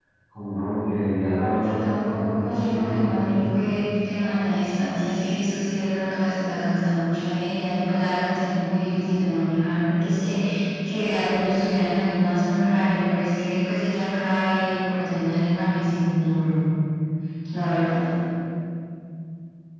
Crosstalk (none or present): present